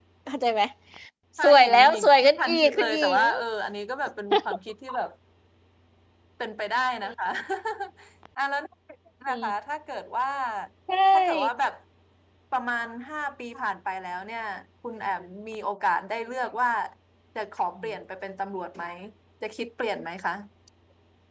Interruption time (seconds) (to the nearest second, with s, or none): 1 s